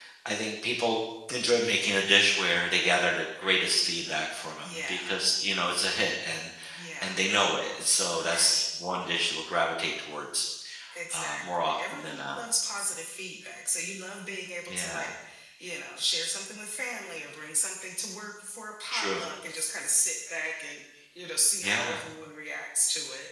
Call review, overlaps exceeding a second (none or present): present